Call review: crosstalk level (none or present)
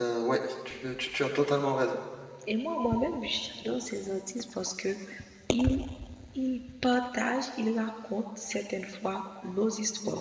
none